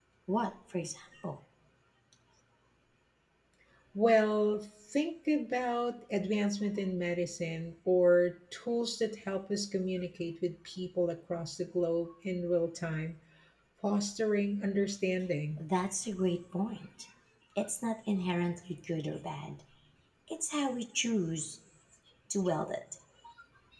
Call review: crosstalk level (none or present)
none